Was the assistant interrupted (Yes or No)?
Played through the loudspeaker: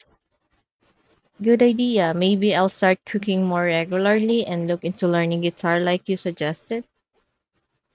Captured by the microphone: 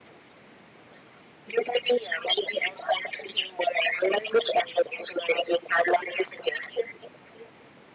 No